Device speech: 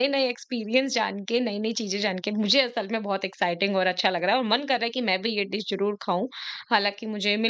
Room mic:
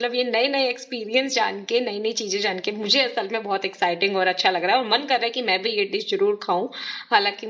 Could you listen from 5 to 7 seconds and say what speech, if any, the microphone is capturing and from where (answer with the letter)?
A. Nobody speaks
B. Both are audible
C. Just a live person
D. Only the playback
D